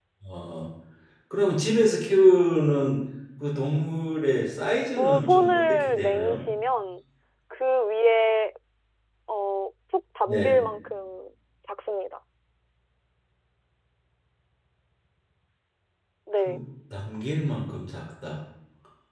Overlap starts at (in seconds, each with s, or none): 5.0 s